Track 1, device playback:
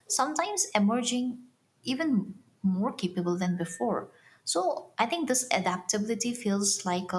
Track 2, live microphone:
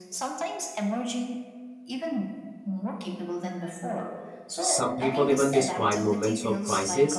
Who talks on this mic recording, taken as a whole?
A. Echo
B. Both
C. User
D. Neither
B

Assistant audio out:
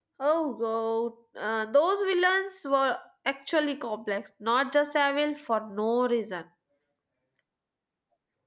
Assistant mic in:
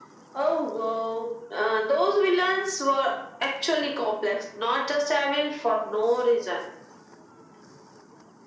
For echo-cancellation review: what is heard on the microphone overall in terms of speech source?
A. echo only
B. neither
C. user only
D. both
A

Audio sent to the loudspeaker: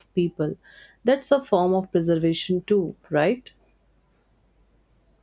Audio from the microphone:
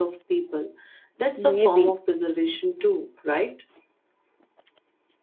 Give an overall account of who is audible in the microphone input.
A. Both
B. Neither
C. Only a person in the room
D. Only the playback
A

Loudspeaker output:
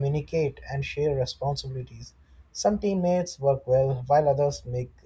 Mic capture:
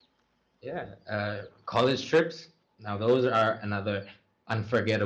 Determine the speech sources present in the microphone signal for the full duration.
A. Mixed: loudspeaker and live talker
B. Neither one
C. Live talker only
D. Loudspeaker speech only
C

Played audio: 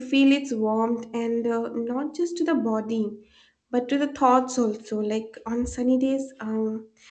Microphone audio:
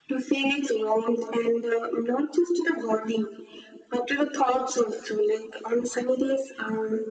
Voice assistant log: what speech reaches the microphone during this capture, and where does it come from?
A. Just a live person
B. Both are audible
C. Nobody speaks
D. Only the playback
D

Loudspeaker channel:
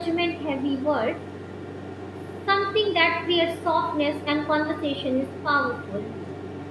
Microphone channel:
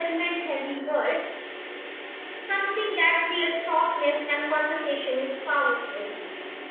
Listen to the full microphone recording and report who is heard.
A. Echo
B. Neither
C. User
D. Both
A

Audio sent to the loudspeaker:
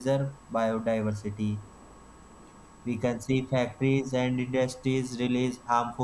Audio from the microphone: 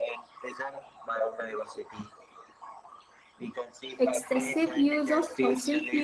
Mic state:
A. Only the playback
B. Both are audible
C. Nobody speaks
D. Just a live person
B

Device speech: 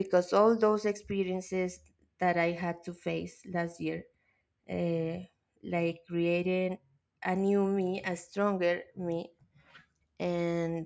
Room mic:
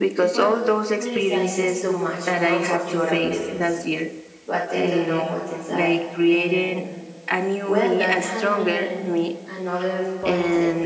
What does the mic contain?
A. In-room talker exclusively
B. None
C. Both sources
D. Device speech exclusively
C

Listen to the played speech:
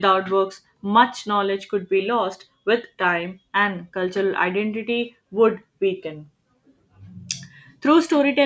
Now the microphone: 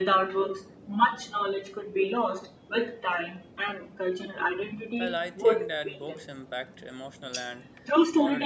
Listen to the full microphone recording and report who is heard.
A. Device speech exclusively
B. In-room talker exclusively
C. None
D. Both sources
D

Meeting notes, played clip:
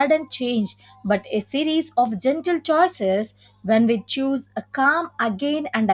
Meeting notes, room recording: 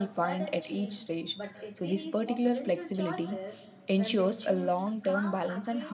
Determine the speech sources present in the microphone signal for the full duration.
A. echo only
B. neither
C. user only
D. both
D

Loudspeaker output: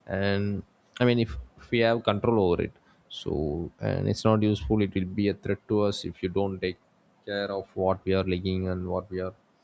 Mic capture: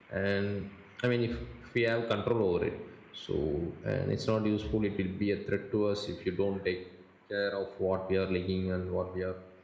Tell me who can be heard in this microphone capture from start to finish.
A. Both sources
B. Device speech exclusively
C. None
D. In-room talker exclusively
B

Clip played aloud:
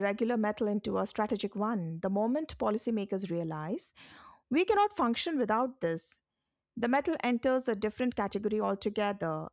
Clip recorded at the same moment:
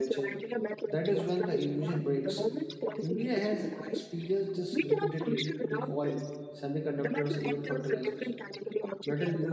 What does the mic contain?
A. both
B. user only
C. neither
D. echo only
A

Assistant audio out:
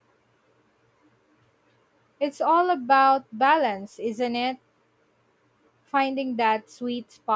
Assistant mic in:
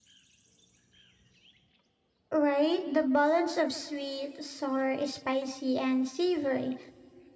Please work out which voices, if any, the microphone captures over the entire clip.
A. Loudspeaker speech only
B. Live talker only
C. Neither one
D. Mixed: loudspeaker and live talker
B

